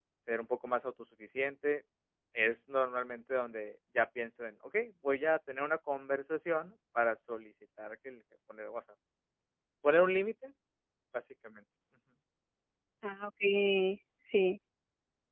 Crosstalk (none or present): none